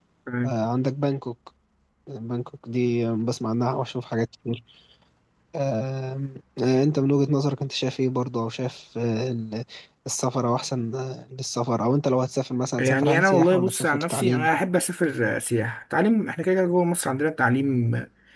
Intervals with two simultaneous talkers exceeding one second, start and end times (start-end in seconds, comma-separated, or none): 12.8-14.5